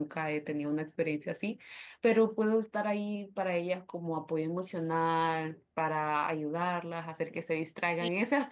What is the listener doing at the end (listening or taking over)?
listening